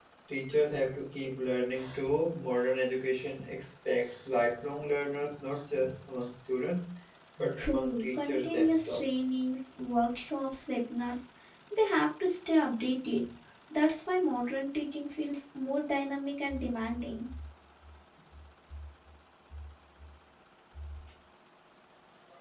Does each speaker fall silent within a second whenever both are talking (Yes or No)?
No